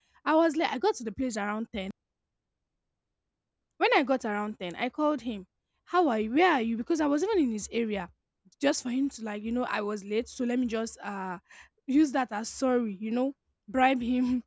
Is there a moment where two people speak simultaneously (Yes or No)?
No